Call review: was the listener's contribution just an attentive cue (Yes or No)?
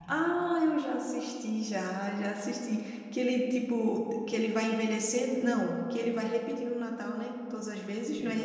No